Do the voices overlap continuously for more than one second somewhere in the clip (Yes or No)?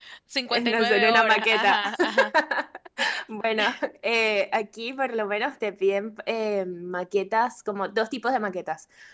Yes